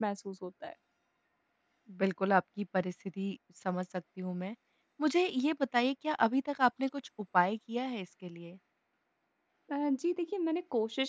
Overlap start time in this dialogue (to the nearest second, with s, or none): none